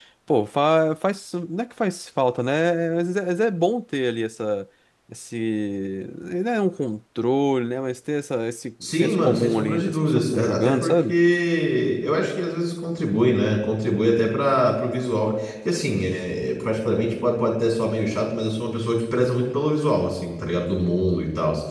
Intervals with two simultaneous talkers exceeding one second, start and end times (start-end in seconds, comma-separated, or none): 8.8-11.1